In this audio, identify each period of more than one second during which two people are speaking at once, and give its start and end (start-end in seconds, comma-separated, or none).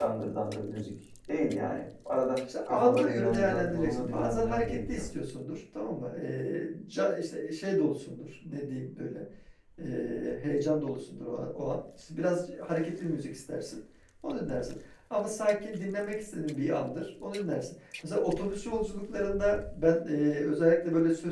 2.7-5.1